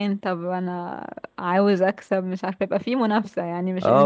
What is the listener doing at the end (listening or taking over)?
taking over